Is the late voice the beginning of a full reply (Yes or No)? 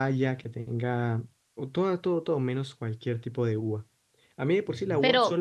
No